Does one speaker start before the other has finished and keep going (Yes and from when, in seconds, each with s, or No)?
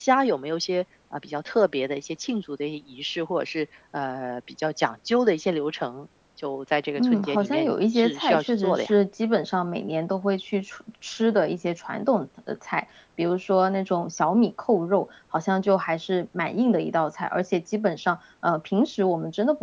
Yes, from 7.0 s